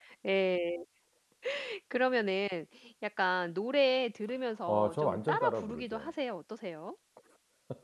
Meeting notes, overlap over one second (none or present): present